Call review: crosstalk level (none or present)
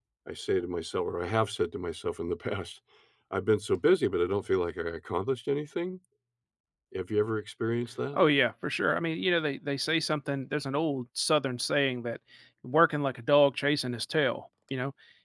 none